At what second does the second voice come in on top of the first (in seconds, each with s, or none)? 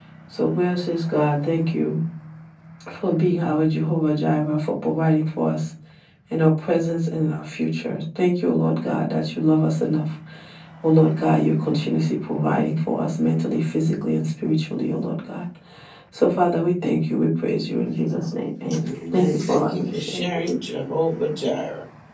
18.7 s